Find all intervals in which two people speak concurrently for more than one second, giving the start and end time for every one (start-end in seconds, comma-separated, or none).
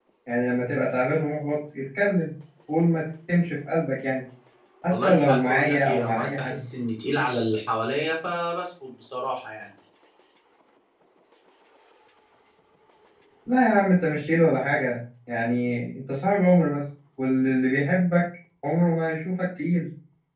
4.9-6.6